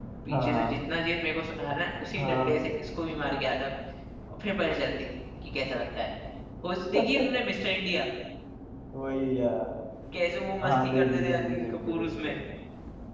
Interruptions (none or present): present